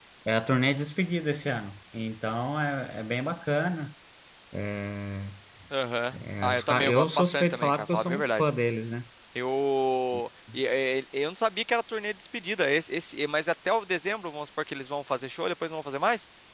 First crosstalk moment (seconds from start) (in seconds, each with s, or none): 6.2 s